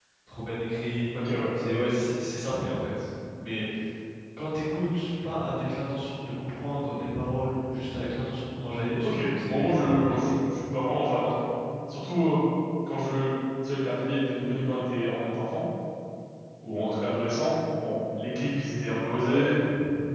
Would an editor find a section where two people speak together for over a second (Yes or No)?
Yes